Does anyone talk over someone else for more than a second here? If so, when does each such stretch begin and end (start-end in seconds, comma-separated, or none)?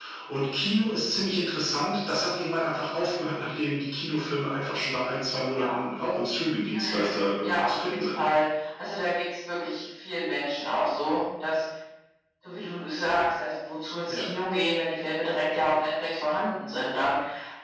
6.7-8.2